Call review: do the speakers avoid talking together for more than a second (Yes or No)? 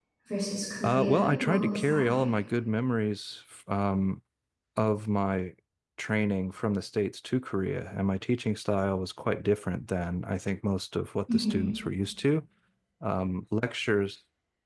No